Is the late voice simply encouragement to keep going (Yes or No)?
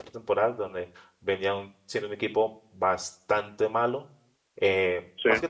Yes